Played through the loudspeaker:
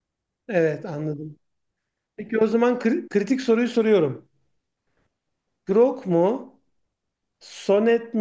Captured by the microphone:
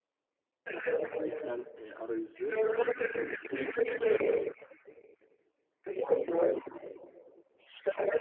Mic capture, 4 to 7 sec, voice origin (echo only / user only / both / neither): echo only